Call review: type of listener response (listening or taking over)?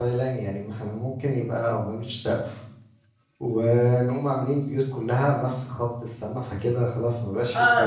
taking over